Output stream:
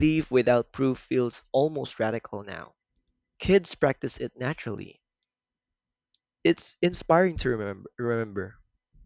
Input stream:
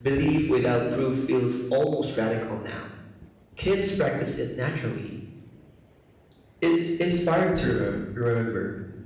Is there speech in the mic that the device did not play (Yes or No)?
No